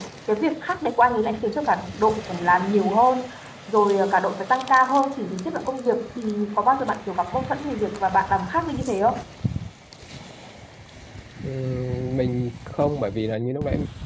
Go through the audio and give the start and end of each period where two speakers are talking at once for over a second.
none

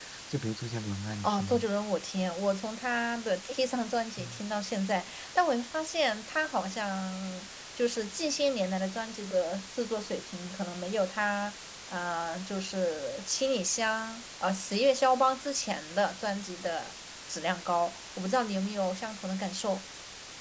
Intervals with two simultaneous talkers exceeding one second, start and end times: none

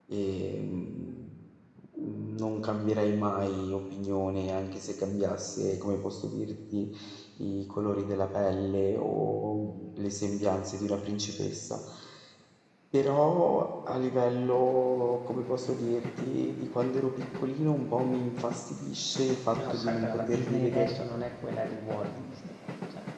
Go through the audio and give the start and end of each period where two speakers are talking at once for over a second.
19.6-20.9

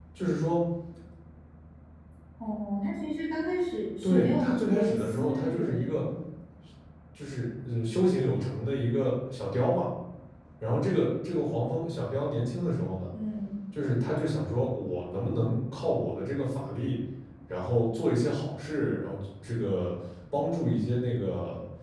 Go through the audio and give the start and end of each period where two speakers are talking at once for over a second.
4.0-6.0

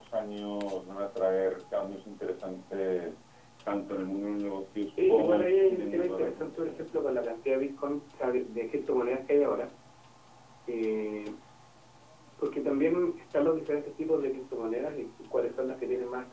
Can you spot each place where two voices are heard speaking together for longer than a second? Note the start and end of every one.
5.1-6.8

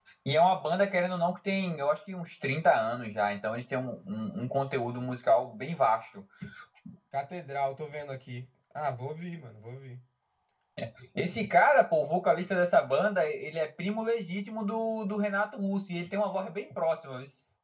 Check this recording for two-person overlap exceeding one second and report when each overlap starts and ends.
none

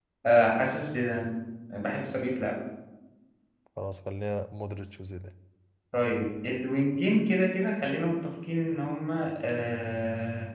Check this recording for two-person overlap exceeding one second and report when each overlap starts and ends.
none

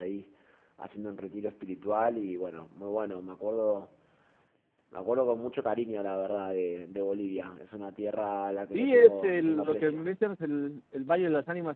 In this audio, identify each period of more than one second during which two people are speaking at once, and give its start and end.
8.7-10.0

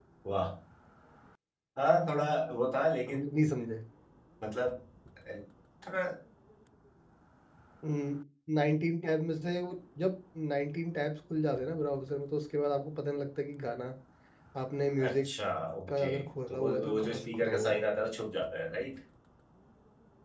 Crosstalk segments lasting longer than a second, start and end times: 16.5-17.8

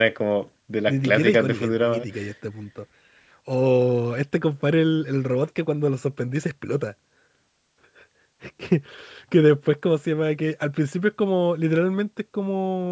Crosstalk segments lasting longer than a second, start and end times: 0.9-2.1

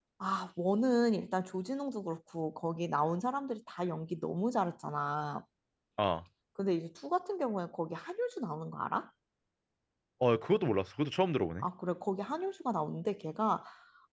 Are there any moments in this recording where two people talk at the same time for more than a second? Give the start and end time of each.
none

